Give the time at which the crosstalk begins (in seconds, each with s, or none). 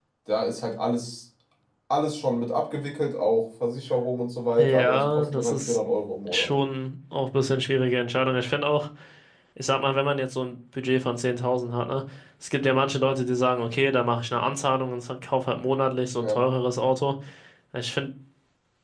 4.6 s